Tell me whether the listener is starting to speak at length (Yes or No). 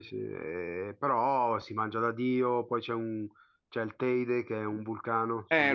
Yes